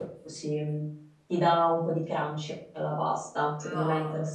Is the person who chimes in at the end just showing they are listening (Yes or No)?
No